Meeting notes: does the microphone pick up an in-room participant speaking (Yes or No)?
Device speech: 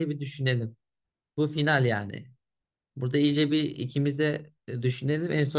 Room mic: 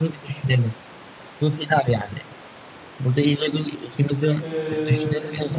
Yes